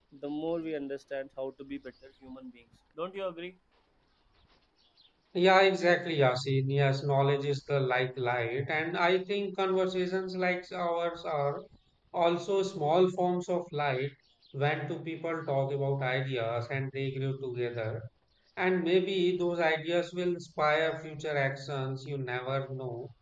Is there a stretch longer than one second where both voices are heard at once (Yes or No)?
No